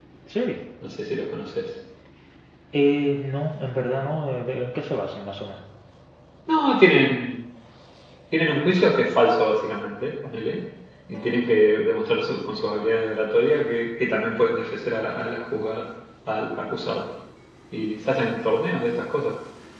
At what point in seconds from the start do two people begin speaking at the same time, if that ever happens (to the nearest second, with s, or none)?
none